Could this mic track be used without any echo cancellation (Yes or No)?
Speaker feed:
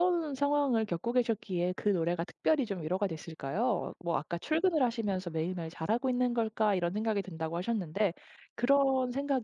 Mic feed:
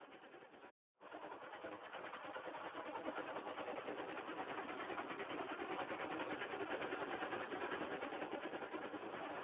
Yes